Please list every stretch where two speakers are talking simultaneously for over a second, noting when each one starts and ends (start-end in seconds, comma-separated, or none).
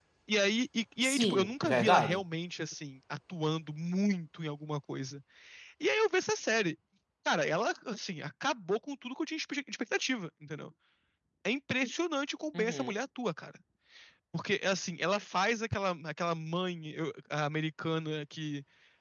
1.0-2.2